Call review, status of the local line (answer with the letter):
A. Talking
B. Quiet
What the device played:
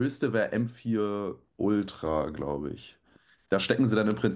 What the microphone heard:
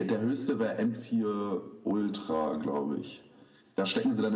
B